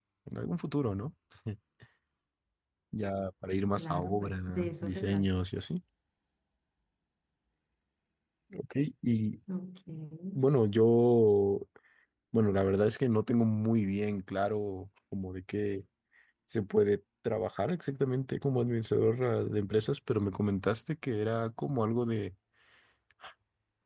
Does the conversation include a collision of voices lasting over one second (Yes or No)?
Yes